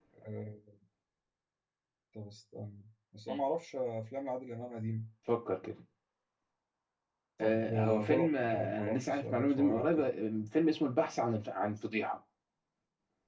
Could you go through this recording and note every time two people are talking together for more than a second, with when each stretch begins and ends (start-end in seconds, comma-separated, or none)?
7.4-10.1